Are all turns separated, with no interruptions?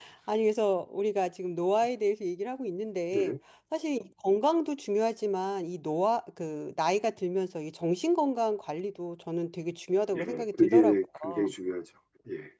No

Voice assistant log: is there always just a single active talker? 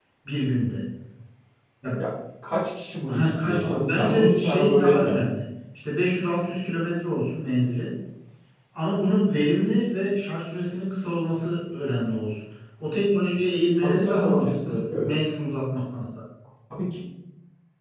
No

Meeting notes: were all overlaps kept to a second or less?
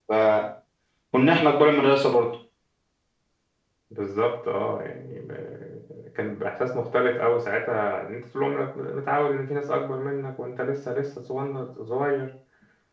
Yes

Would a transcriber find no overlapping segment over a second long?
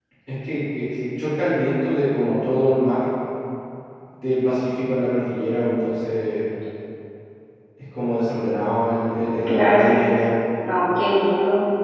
Yes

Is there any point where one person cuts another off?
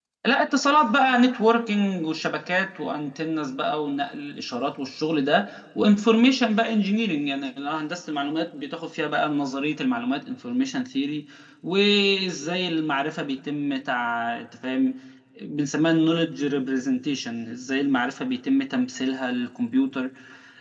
No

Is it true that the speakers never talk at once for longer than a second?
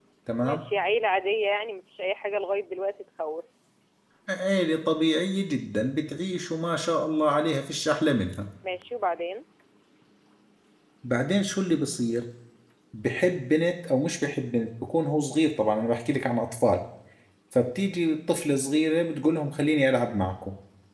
Yes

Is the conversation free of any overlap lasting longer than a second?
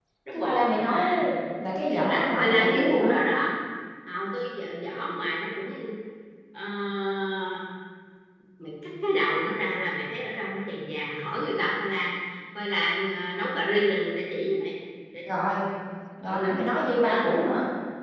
No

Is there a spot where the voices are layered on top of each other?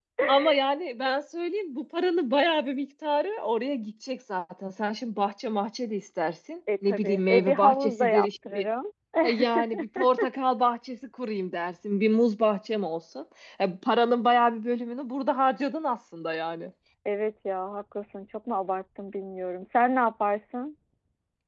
Yes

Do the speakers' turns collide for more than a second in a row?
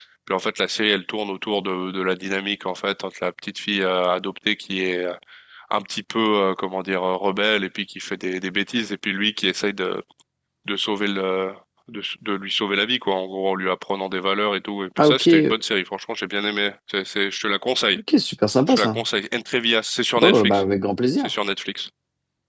No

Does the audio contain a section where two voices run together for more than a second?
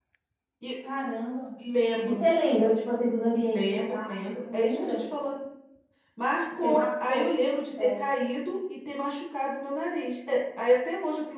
Yes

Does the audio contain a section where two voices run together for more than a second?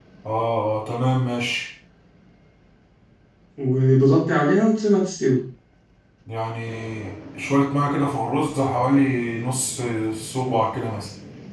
No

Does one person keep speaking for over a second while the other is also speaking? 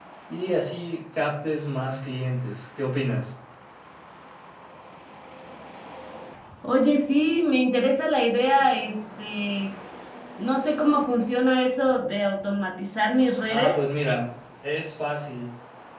No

